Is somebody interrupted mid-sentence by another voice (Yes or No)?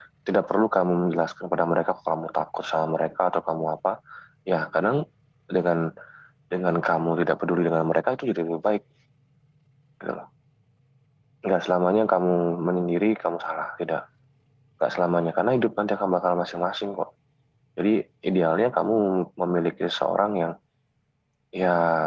No